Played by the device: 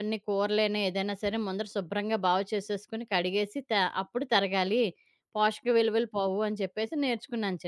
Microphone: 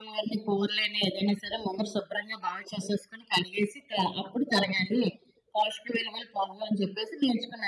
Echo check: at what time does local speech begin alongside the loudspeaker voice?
none

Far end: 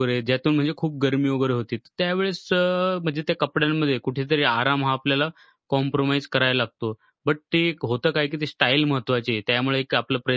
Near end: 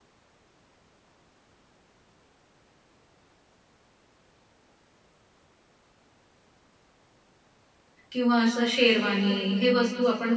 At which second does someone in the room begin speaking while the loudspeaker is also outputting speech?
8 s

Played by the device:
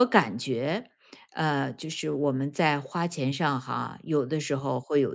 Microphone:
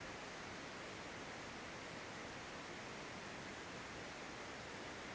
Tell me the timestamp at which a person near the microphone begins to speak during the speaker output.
none

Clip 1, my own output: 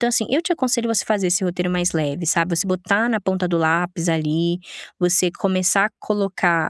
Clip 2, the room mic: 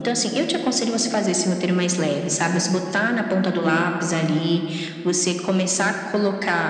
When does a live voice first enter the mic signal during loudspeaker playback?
none

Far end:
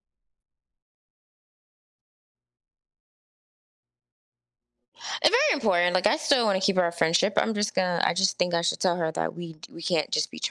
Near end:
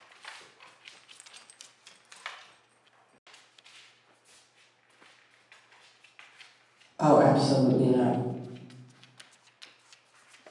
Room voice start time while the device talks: 7 s

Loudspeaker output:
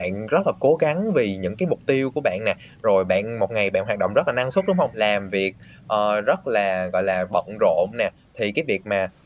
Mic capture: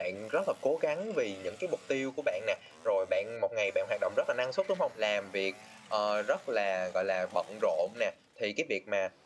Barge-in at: none

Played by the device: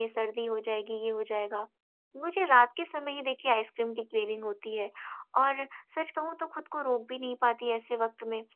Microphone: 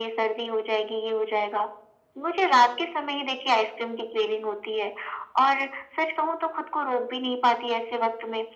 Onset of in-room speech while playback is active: none

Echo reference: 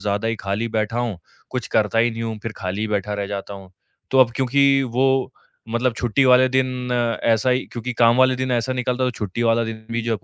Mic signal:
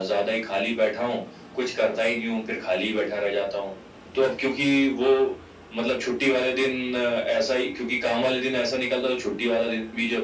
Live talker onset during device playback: none

